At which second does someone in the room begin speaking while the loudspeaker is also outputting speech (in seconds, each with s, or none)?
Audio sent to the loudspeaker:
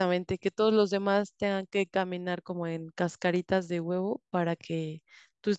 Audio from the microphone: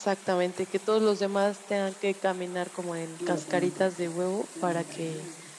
3.2 s